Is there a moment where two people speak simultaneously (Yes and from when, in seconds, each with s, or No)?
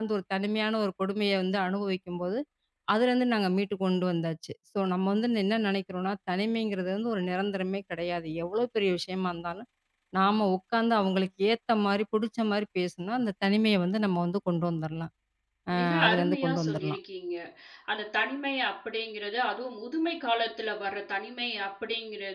Yes, from 15.8 s